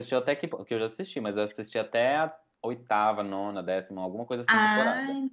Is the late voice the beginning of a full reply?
Yes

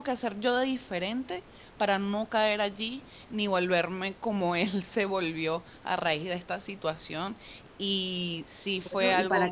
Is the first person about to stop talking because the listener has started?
Yes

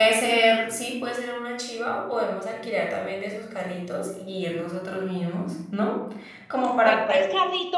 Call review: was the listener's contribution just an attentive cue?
No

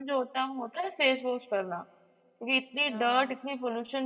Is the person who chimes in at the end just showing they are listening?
Yes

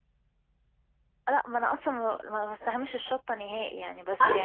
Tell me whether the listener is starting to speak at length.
Yes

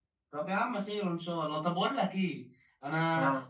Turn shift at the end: No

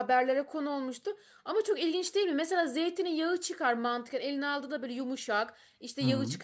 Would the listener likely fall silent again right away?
Yes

